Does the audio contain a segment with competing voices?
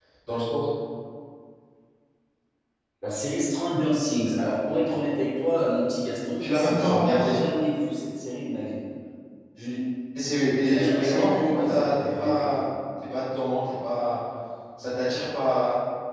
Yes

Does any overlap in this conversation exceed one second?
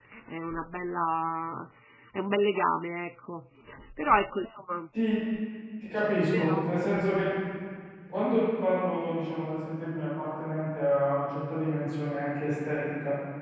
No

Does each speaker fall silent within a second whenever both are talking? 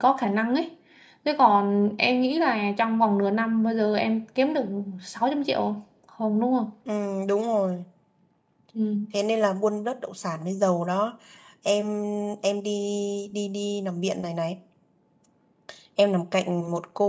Yes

